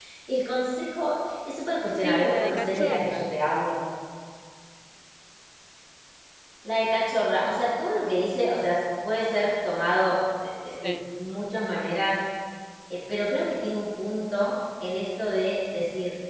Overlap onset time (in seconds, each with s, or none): 2.0 s